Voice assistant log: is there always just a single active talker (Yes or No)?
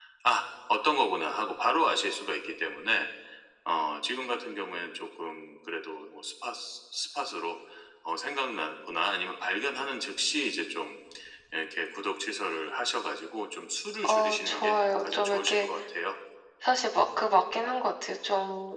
No